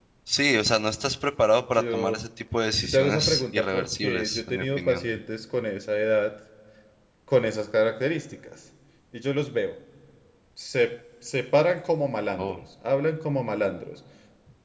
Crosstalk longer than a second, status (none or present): present